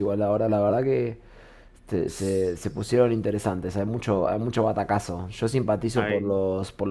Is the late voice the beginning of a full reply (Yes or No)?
No